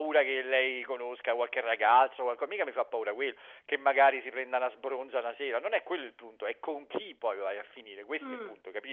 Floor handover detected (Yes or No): Yes